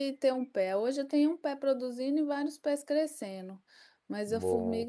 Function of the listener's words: listening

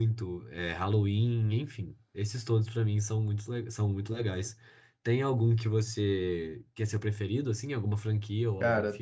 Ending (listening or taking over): taking over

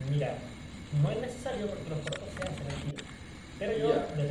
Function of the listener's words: listening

